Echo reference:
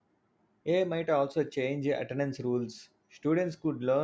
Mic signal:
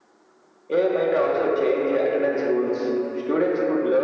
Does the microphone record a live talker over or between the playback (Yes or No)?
No